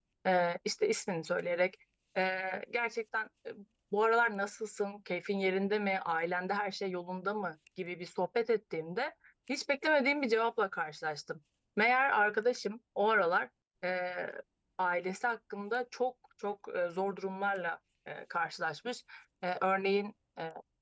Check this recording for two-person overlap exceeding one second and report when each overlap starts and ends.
none

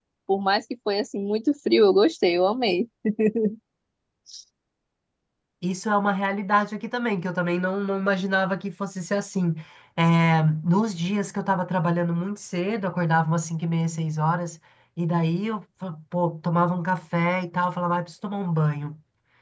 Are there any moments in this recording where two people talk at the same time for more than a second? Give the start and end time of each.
none

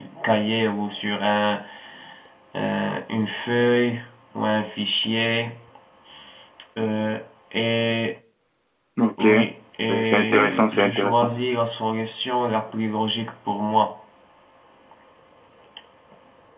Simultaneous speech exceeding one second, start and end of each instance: 9.9-11.3

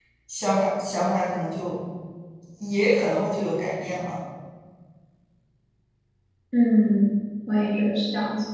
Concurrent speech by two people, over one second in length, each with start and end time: none

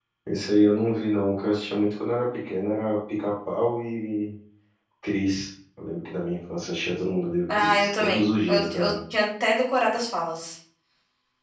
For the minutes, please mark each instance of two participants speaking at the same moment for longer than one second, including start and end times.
7.5-8.9

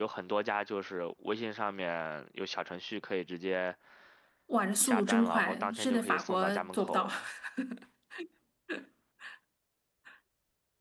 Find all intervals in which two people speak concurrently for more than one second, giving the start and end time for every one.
4.8-7.1

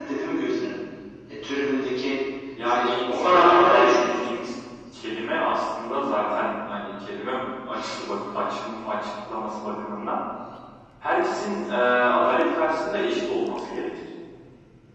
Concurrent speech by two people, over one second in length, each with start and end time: 2.6-4.2

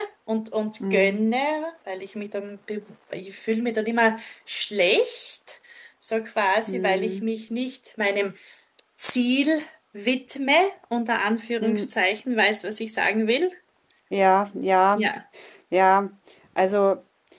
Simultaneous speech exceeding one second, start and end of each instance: none

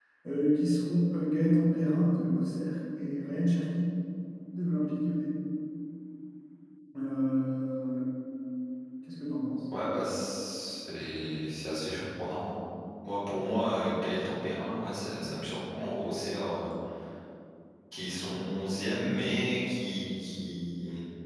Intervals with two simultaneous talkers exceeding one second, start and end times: none

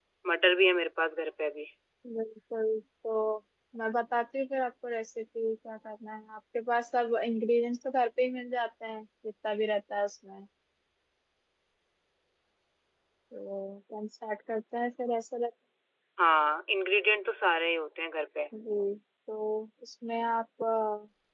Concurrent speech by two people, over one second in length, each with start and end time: none

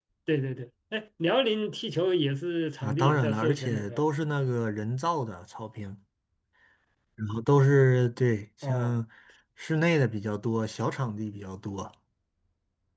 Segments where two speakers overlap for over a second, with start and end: 2.8-4.0

